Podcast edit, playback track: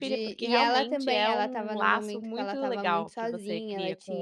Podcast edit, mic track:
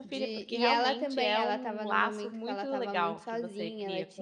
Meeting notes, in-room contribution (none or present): none